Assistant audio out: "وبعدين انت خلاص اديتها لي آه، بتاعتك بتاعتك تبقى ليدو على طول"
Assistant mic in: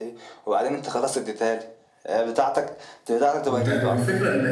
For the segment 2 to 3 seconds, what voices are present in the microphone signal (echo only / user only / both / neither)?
echo only